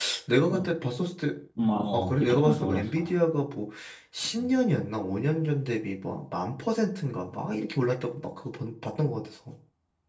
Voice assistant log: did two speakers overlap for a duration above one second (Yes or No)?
Yes